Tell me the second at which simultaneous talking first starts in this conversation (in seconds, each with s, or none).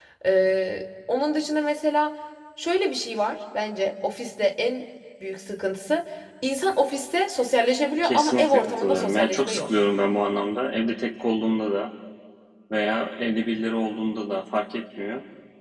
8.0 s